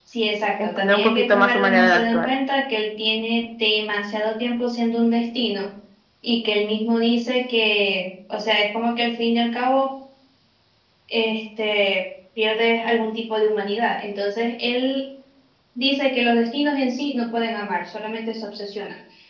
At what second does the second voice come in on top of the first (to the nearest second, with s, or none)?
1 s